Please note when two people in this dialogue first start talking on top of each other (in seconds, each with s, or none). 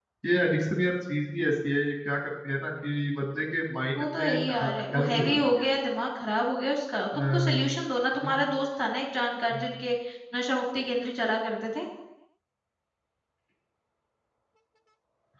4.0 s